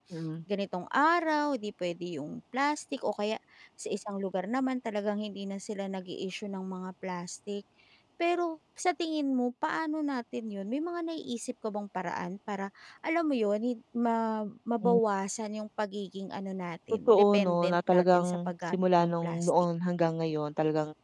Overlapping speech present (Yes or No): Yes